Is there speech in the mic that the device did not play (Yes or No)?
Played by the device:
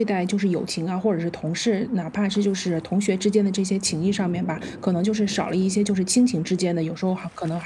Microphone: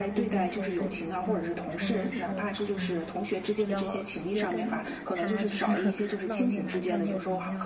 Yes